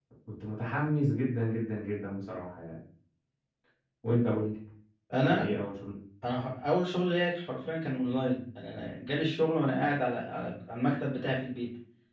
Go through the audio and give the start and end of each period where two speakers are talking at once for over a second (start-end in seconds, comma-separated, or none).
none